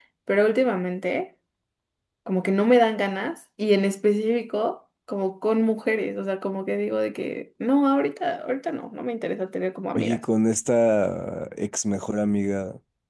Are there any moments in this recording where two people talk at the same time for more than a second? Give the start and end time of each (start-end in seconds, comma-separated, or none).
none